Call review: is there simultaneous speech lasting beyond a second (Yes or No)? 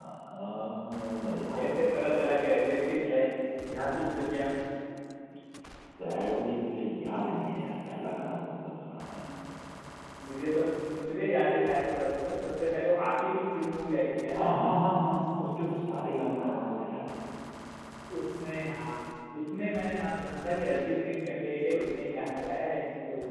No